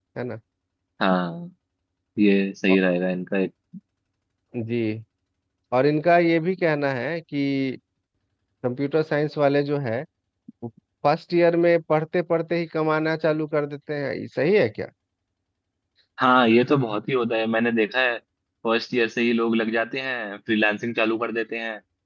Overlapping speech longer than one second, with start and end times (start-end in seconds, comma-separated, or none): none